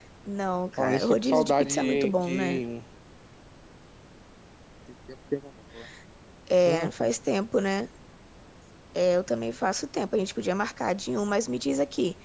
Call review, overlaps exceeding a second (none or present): present